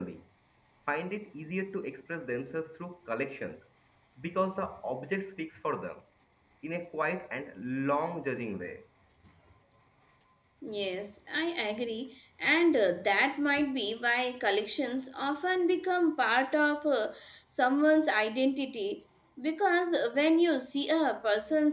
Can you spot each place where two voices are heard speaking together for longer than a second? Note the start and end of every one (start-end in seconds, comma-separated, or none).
none